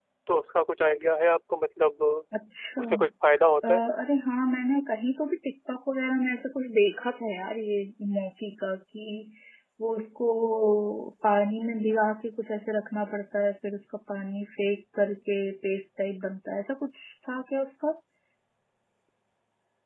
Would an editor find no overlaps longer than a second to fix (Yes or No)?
Yes